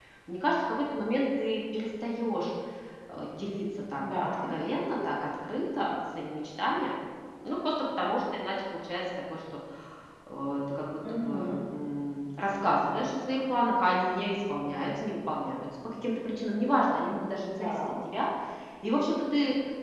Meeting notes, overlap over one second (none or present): none